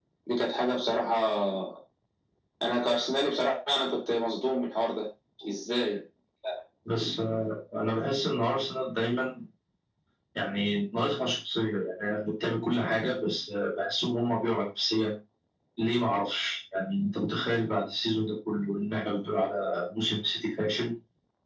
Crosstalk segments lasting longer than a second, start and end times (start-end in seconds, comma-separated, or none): none